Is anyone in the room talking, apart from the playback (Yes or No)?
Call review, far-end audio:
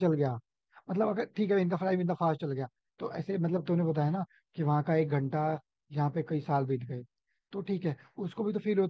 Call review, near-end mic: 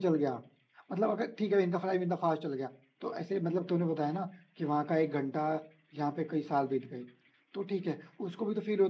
No